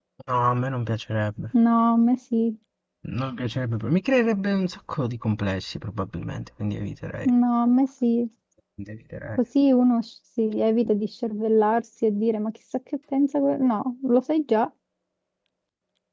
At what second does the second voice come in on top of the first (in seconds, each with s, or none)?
none